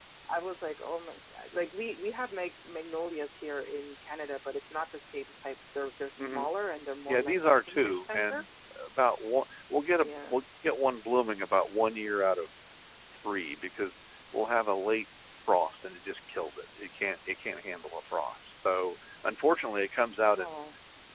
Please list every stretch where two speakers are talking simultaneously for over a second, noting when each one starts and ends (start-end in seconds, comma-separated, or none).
7.1-8.4